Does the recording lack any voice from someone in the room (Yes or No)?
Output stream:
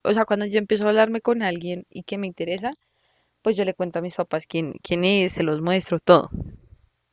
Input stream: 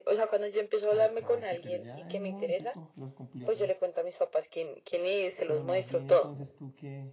No